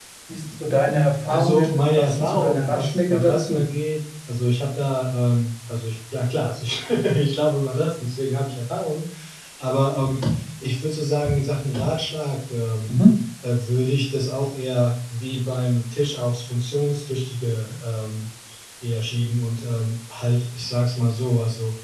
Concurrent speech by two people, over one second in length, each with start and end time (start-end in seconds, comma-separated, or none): 1.2-3.6